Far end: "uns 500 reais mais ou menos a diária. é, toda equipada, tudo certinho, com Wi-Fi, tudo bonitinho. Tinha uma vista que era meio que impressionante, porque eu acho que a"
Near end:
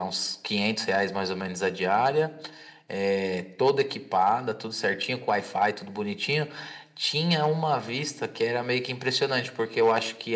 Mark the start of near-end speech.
none

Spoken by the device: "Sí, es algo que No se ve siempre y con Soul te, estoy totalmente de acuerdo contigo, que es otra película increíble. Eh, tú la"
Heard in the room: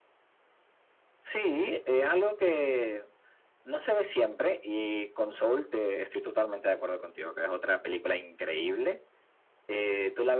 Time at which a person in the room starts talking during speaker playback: none

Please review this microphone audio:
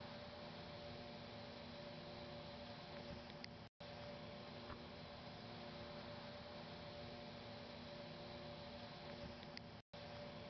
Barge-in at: none

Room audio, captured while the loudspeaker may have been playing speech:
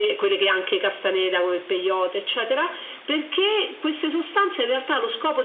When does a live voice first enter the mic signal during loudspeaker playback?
none

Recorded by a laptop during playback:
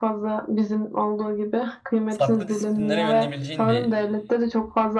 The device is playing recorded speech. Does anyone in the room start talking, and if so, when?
2.1 s

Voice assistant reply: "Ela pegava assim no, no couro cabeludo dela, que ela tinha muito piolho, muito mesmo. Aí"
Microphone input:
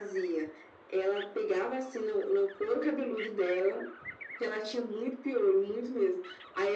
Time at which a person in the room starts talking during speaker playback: none

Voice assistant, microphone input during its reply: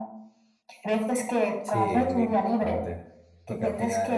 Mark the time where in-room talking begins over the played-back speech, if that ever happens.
1.6 s

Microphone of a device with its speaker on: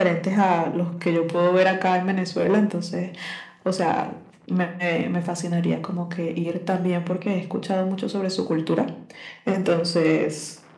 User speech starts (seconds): none

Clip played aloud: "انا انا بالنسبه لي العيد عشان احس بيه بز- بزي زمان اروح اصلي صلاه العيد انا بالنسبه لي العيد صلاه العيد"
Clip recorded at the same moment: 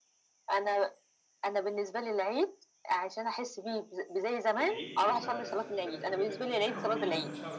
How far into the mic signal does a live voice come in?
4.6 s

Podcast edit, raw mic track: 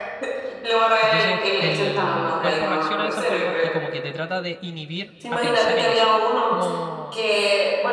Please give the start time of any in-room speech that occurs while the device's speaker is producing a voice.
1.0 s

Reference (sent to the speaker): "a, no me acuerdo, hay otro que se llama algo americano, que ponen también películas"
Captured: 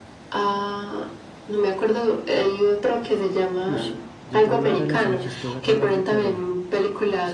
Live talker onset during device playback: 3.6 s

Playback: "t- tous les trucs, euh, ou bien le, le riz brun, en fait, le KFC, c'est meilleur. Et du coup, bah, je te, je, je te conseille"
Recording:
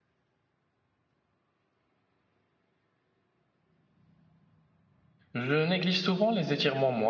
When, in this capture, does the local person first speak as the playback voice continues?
5.3 s

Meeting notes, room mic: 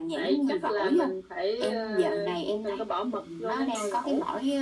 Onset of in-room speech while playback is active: none

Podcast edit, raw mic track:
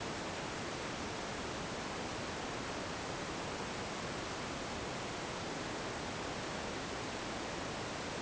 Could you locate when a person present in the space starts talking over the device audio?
none

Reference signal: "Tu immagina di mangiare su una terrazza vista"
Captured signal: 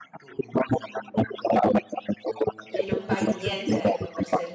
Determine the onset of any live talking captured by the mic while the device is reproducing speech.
2.8 s

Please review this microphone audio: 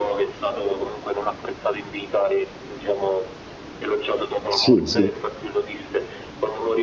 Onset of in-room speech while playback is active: 4.5 s

